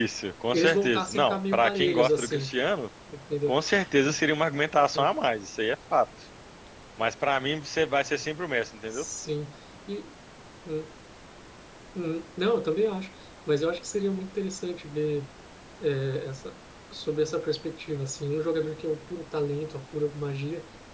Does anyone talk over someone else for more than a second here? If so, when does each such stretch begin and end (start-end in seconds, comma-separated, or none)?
0.5-2.5